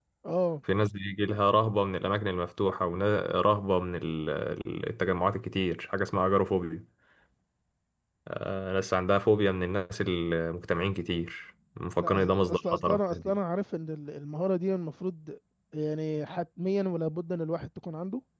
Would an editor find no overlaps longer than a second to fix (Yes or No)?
No